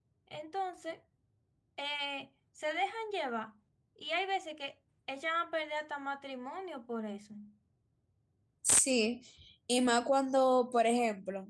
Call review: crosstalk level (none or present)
none